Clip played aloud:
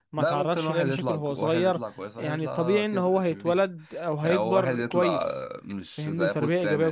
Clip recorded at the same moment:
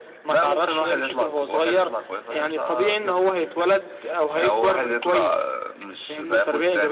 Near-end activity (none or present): none